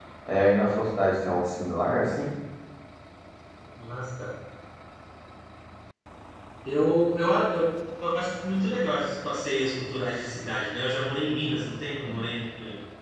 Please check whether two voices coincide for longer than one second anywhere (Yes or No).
No